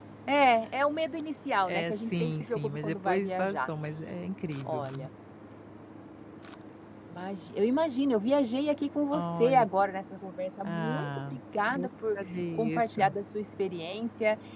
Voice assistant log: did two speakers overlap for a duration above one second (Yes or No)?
Yes